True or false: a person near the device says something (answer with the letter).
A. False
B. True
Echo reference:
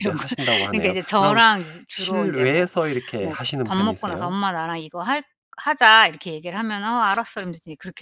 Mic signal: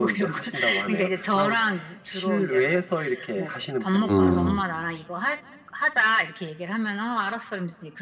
B